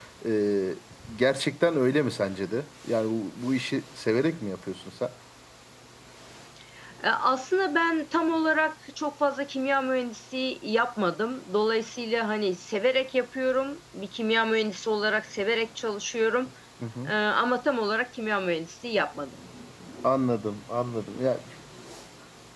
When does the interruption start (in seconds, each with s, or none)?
none